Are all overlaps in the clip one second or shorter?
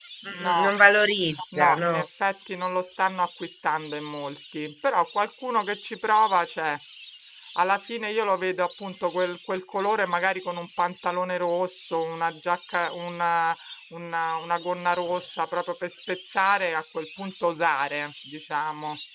Yes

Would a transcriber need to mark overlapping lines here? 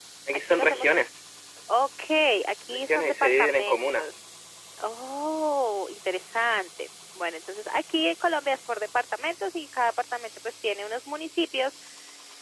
Yes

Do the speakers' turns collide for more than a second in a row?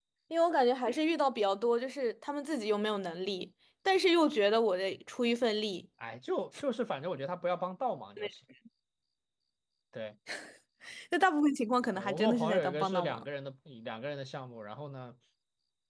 Yes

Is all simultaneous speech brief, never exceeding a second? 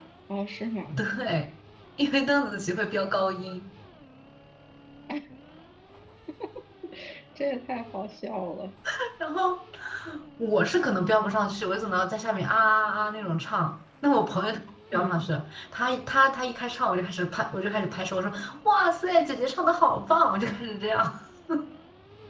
Yes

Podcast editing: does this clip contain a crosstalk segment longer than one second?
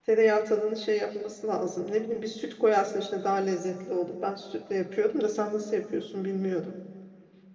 No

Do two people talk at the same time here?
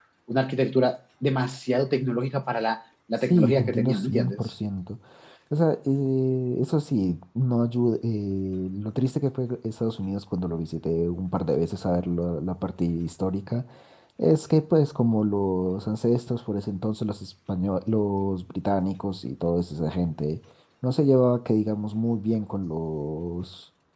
Yes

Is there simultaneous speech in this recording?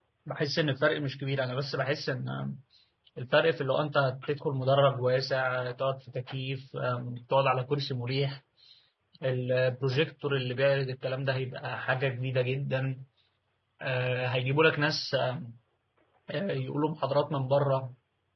No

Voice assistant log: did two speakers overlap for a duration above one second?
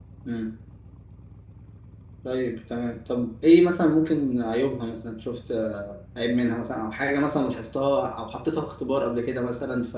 No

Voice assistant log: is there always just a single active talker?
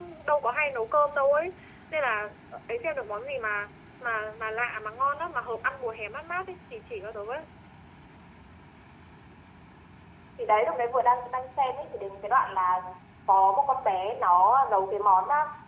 Yes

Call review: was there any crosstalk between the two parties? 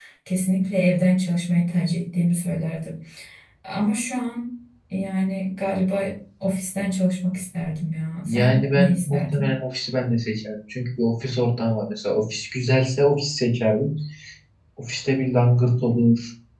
Yes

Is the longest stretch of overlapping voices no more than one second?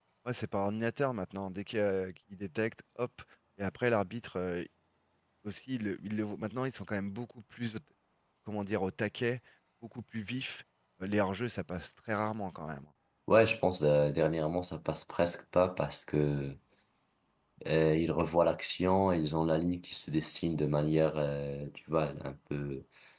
Yes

